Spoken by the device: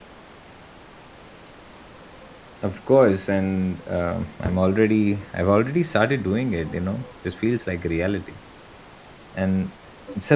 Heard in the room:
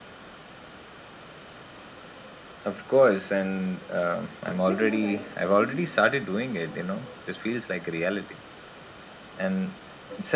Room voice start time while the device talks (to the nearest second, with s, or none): 5 s